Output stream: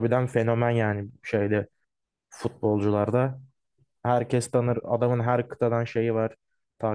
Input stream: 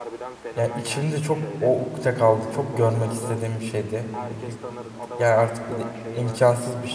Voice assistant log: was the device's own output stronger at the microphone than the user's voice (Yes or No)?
No